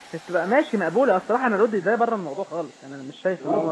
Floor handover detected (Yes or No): Yes